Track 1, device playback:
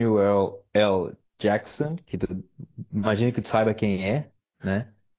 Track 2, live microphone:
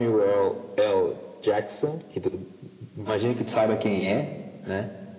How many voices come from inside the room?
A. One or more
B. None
B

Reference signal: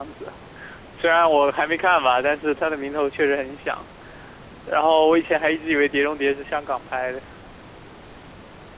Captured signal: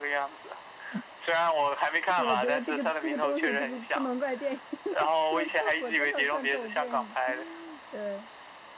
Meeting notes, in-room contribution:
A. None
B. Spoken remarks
B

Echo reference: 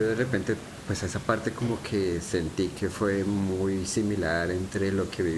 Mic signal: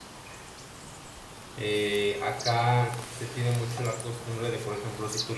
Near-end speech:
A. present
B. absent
A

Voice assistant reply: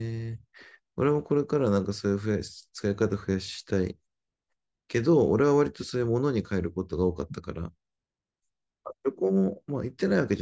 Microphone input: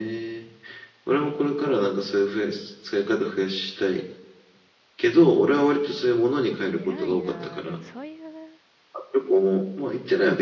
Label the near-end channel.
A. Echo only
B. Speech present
B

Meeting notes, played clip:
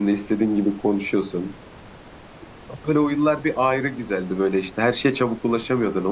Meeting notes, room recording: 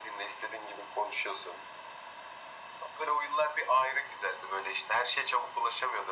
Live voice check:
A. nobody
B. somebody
A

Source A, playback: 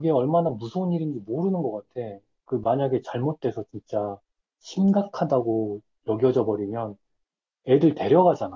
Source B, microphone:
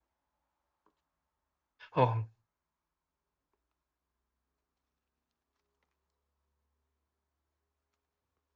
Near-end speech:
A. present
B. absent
A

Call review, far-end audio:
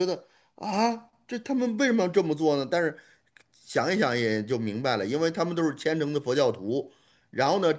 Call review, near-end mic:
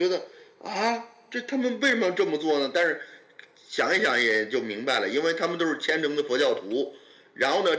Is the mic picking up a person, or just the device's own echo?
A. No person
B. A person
A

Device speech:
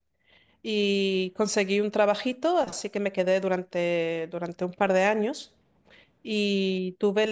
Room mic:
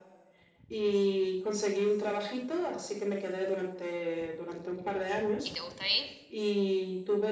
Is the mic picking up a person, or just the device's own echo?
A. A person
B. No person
A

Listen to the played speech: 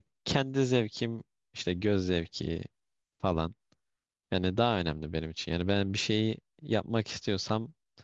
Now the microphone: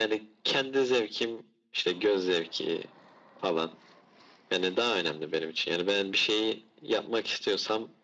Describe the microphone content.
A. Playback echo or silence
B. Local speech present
A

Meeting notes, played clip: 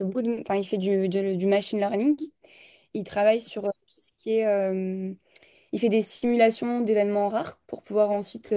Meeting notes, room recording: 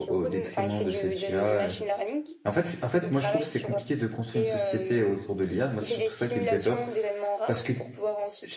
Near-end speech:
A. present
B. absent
A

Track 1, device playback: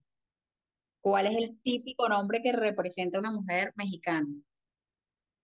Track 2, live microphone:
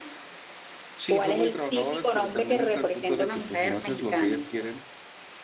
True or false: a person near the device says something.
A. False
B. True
B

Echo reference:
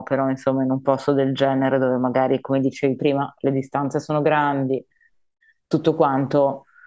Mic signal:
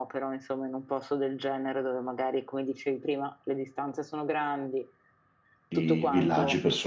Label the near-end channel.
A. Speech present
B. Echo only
A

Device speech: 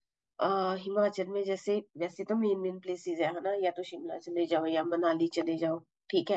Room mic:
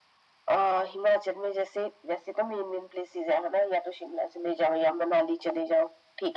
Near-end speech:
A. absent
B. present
A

